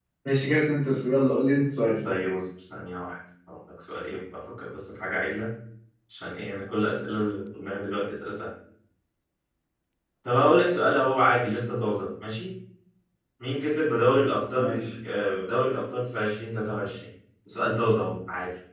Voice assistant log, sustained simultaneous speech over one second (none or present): none